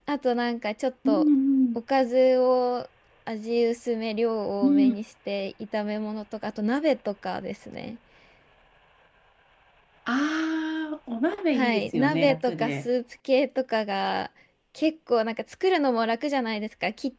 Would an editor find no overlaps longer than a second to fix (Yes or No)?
No